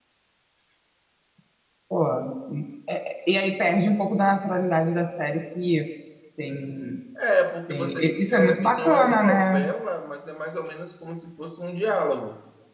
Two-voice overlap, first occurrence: 7.7 s

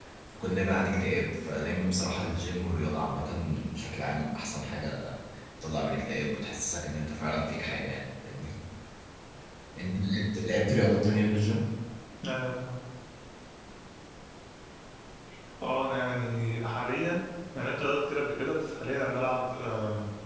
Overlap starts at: none

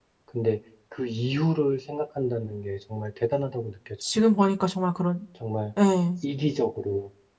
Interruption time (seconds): none

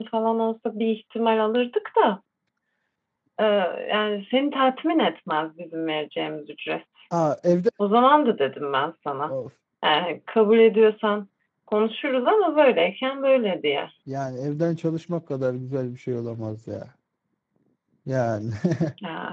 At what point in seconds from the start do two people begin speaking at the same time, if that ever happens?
none

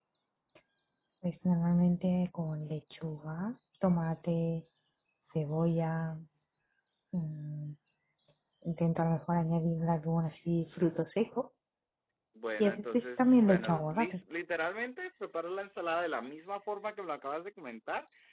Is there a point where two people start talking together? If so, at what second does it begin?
12.6 s

